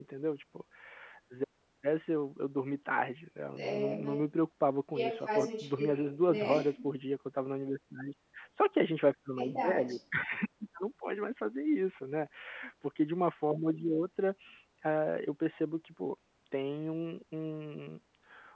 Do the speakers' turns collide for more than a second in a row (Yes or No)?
Yes